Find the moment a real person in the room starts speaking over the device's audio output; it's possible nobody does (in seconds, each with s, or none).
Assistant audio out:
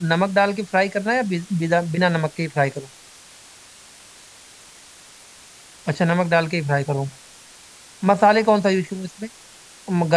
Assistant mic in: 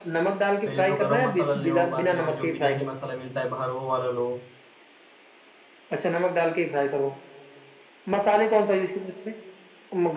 0.6 s